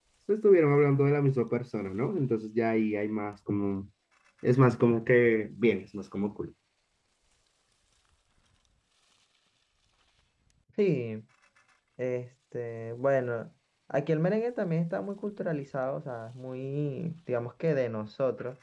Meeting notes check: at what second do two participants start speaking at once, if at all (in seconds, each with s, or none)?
none